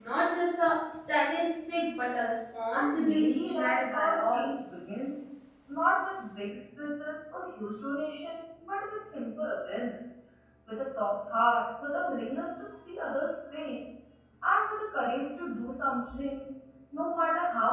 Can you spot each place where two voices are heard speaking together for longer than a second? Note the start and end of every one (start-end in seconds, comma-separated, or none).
2.7-4.5